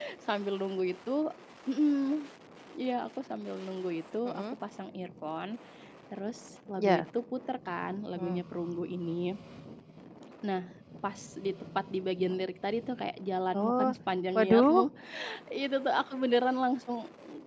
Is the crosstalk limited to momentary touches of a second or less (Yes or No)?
Yes